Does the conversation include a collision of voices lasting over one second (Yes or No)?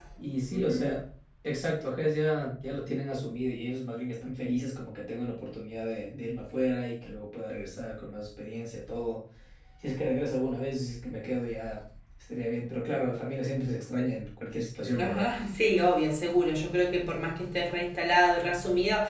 No